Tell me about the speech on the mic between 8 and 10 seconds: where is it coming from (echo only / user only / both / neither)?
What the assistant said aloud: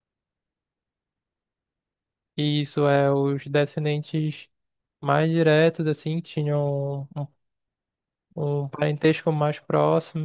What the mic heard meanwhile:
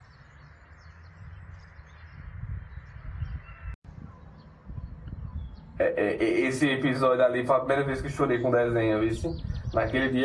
user only